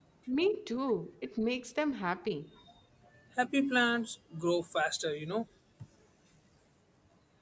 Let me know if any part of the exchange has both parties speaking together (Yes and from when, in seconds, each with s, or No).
No